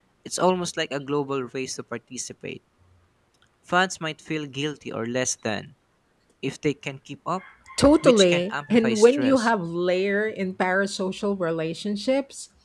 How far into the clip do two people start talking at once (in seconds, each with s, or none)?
8.0 s